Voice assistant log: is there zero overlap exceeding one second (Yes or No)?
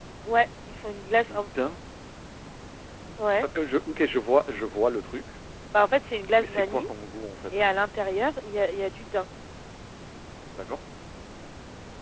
Yes